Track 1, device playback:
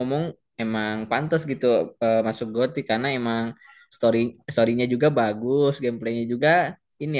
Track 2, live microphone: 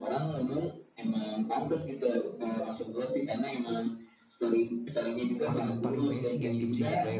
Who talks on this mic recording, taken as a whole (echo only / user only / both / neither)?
both